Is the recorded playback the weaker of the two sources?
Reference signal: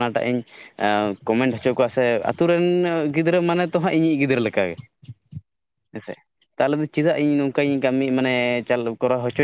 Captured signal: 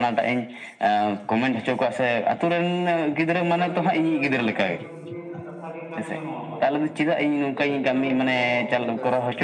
No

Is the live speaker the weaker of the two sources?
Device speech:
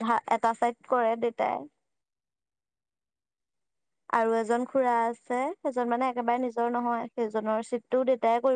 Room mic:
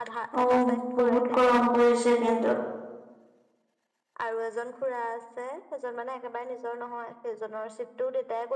No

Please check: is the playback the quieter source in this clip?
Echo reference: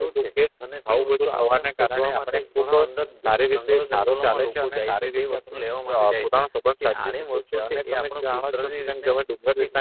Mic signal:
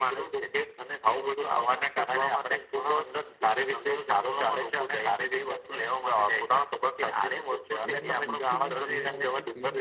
No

